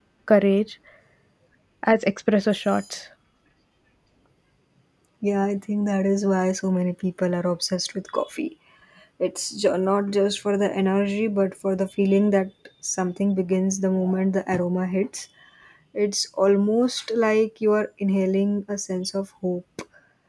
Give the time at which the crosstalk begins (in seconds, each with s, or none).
none